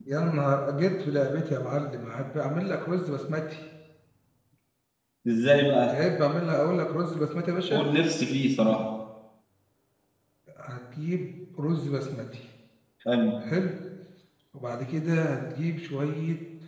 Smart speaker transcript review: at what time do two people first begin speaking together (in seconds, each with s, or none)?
none